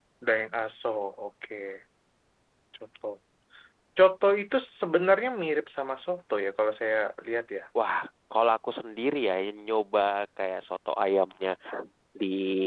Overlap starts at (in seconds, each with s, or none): none